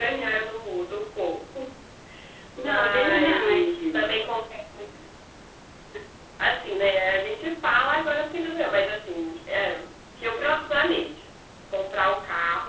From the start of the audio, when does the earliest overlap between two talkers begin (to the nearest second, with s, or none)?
3 s